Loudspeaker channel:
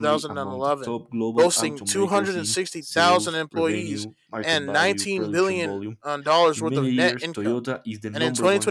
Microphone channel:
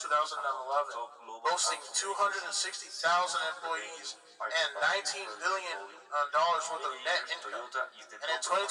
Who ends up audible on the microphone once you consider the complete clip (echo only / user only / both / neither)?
echo only